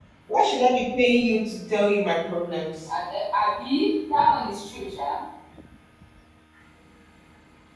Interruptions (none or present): none